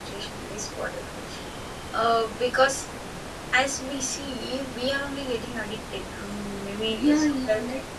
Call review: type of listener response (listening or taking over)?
taking over